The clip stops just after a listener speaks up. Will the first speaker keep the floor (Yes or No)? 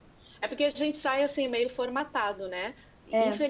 Yes